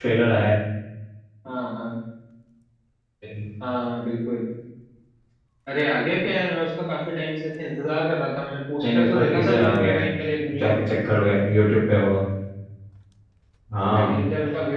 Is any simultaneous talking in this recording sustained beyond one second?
Yes, from 8.8 s

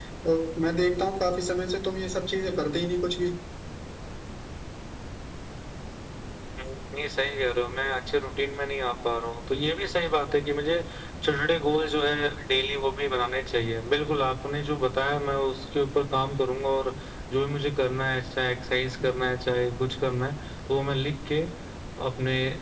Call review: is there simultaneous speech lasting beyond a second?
No

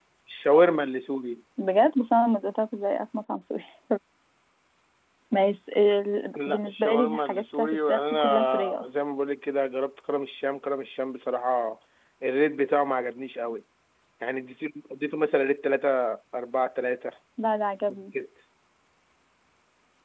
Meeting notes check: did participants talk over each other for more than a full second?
Yes, from 6.3 s

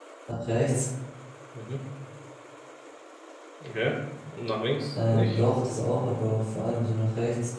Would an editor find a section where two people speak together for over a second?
No

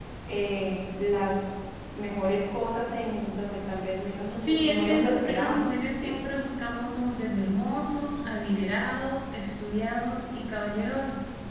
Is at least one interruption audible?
Yes, from 4.4 s

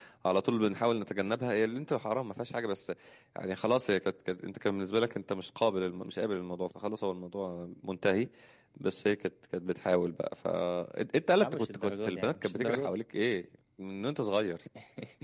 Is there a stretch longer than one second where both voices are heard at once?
Yes, from 11.4 s

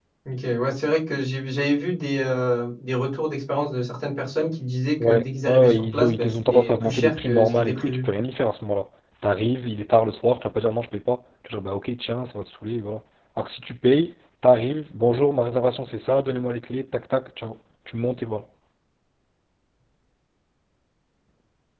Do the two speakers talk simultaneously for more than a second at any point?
Yes, from 5.0 s

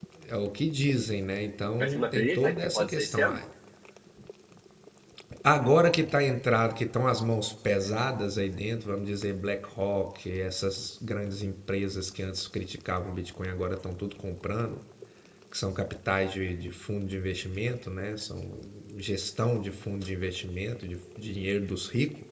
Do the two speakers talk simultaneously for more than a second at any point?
Yes, from 1.8 s

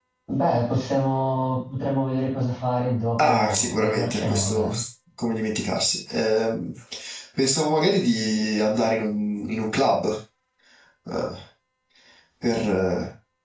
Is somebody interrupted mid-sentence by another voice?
Yes, from 3.2 s

